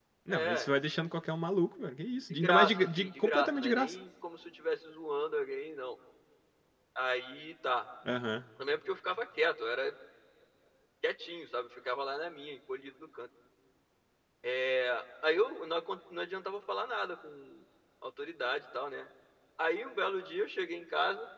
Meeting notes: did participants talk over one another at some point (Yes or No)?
Yes